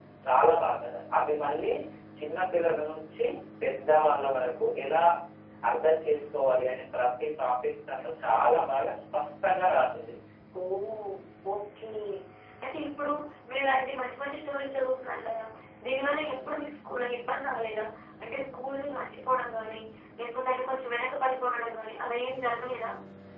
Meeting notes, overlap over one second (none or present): none